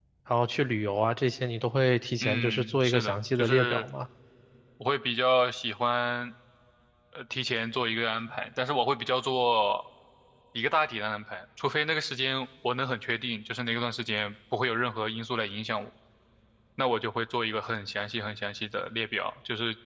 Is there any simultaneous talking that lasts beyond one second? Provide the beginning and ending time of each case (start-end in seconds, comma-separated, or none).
2.2-3.8